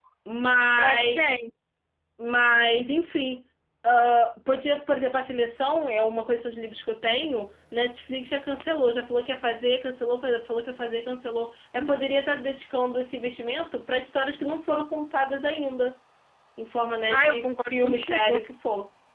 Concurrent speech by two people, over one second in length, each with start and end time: 17.1-18.4

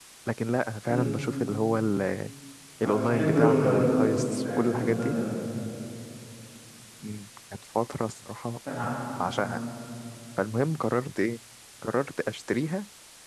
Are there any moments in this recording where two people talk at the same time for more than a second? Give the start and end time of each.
2.8-5.2

